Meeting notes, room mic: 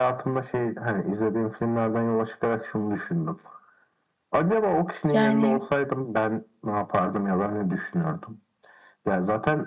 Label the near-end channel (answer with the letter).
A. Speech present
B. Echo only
A